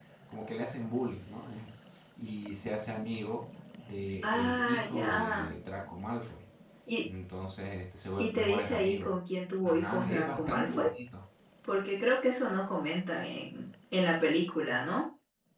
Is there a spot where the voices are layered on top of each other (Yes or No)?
Yes